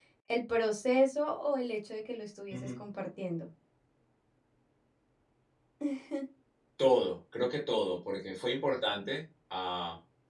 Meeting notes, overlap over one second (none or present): none